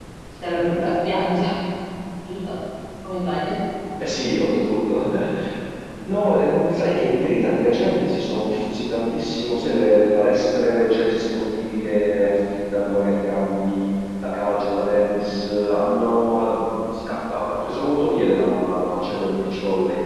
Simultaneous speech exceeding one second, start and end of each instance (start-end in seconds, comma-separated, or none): none